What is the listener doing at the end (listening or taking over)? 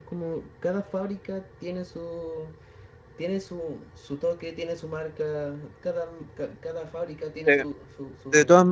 taking over